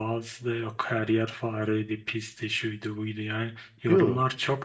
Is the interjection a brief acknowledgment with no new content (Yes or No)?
Yes